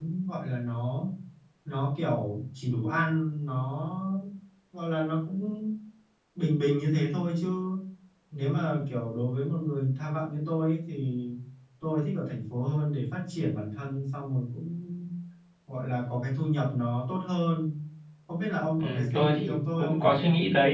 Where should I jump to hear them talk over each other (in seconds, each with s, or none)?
18.8 s